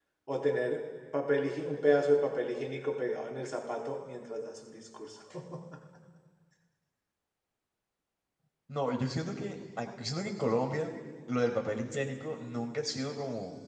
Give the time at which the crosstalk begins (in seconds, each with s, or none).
none